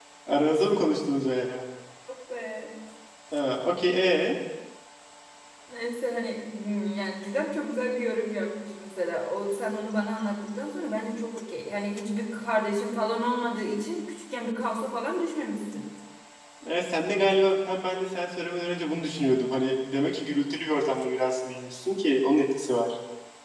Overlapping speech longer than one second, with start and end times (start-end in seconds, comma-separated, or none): none